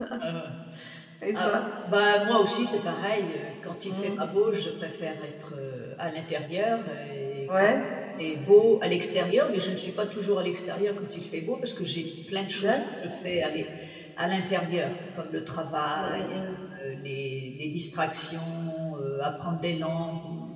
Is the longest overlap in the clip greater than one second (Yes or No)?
No